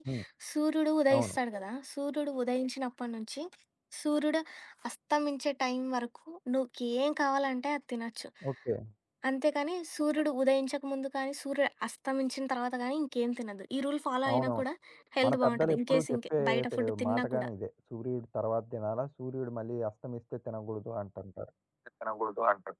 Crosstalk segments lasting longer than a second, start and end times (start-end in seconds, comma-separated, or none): 15.2-17.5